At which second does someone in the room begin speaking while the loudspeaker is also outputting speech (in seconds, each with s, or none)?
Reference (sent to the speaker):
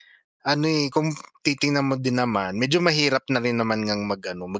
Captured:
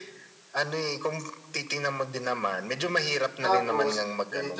3.4 s